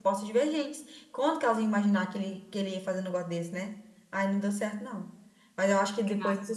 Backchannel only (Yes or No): Yes